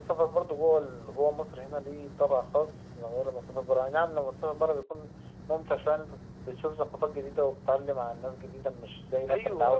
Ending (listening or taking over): taking over